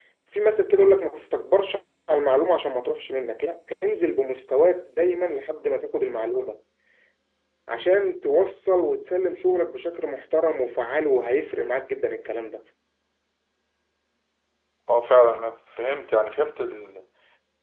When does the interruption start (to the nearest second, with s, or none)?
none